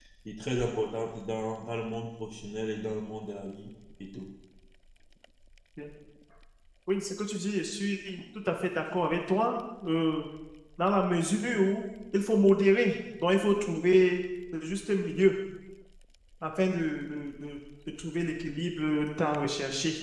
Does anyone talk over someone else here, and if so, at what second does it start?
none

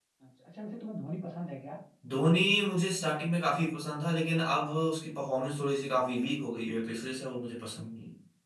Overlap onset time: none

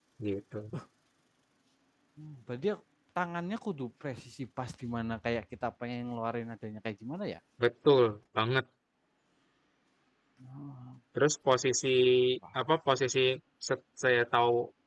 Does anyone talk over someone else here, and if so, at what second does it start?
none

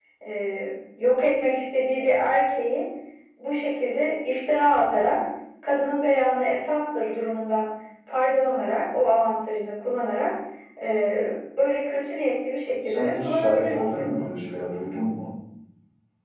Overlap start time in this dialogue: 12.8 s

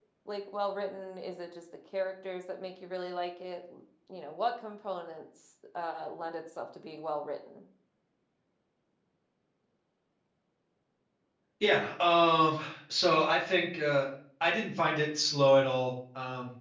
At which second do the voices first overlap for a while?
none

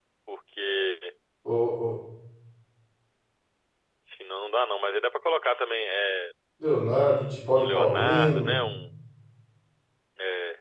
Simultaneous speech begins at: 6.9 s

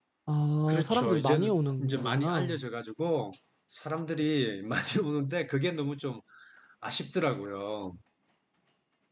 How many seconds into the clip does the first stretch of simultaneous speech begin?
0.7 s

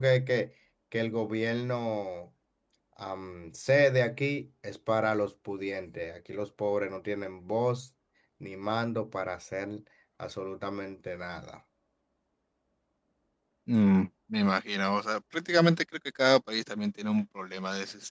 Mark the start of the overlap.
none

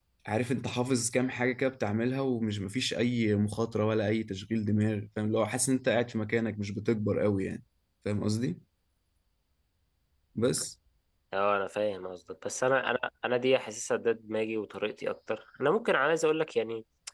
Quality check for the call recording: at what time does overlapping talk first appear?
none

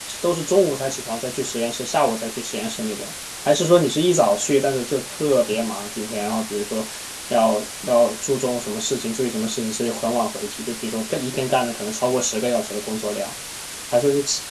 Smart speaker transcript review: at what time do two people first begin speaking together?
none

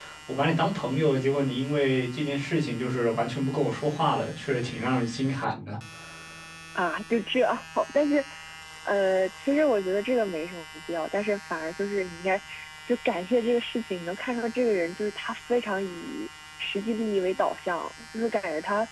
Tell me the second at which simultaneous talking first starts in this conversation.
none

